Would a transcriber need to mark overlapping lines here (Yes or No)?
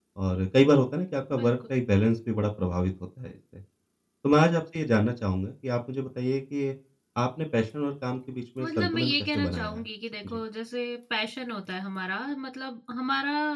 Yes